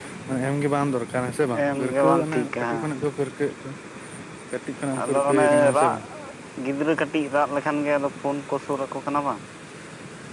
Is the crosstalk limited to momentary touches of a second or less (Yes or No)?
No